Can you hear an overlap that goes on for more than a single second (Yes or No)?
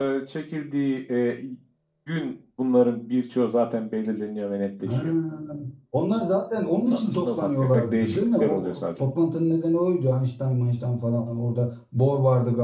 Yes